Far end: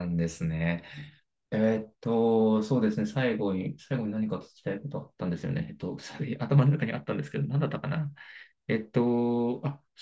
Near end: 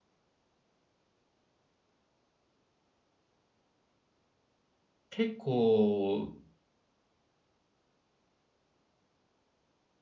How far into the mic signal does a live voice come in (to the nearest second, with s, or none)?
5 s